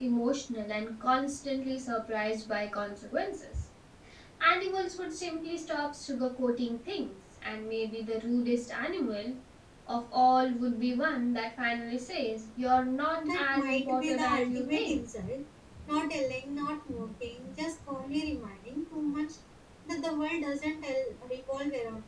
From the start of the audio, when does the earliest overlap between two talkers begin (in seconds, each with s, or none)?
13.2 s